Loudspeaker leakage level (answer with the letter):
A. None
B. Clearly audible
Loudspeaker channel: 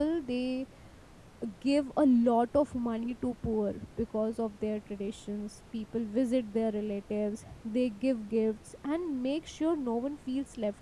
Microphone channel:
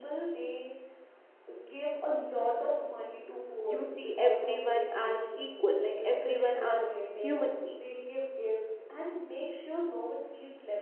B